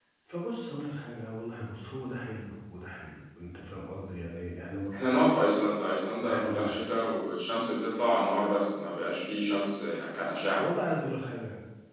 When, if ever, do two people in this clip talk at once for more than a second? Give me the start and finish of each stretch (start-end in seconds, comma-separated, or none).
none